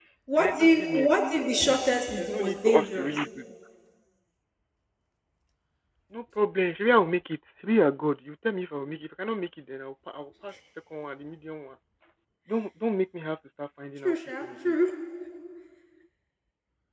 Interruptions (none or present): present